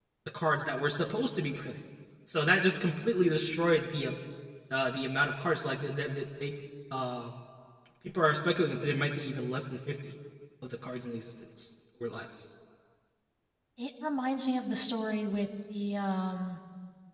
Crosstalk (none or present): none